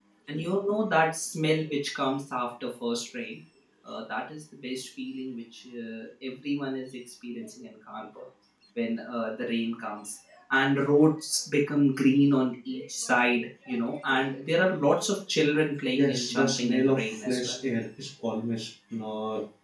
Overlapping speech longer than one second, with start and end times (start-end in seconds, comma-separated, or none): 16.0-17.5